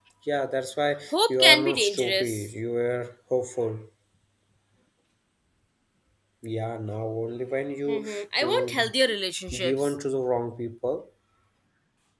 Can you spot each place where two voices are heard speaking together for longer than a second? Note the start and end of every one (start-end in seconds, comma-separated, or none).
1.1-2.5